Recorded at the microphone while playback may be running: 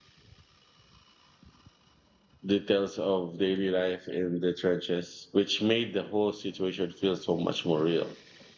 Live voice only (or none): details of daily life in the trenches, which made the whole situation feel so much more real.